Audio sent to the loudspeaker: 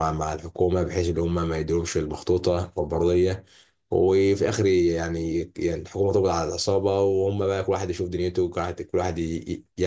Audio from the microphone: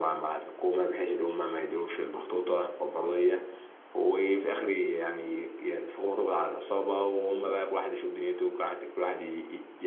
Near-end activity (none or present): none